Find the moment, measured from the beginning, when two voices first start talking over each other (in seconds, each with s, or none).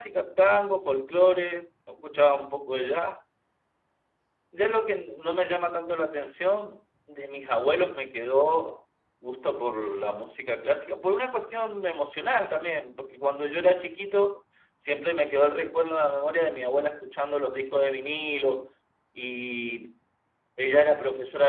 none